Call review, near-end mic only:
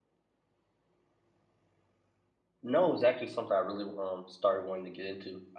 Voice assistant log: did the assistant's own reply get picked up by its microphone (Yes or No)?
No